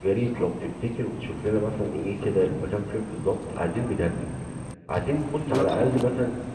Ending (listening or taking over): listening